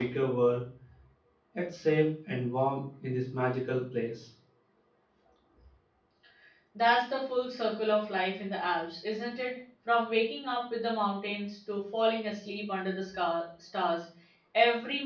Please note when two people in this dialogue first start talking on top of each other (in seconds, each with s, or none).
none